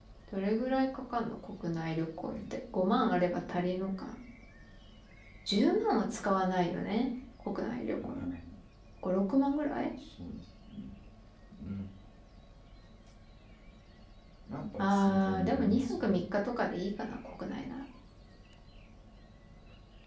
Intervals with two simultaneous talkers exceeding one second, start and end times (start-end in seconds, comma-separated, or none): 14.8-16.2